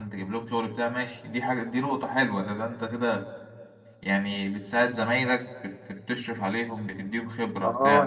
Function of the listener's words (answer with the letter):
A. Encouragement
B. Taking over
B